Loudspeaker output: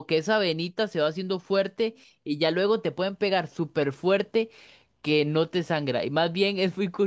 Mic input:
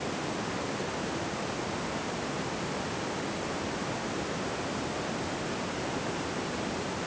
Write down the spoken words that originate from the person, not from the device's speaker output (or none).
none